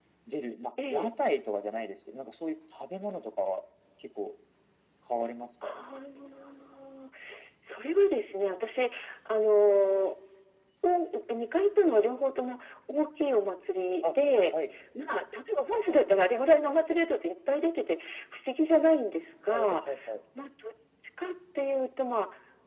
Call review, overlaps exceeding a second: none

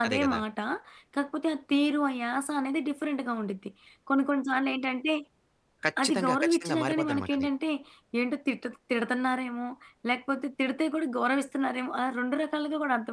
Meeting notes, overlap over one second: present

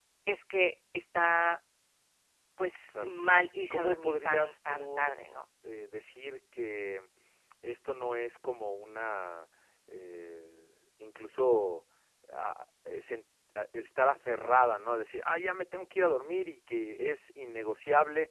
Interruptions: present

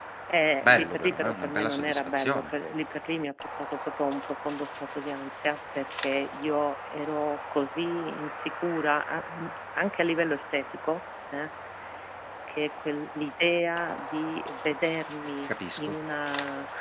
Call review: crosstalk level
present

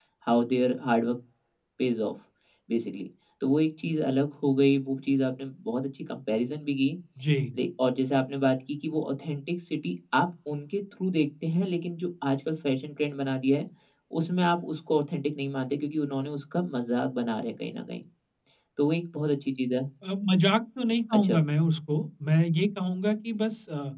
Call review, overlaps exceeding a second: none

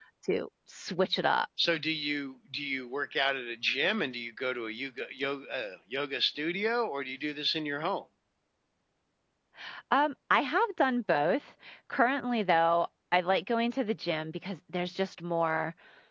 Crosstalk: none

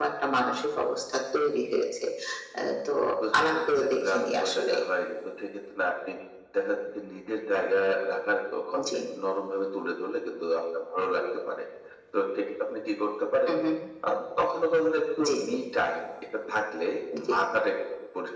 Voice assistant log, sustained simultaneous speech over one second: present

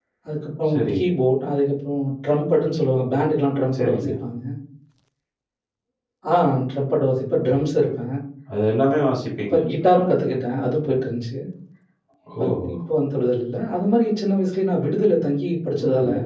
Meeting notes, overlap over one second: none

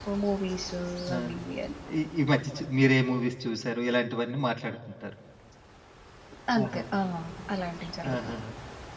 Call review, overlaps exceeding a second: none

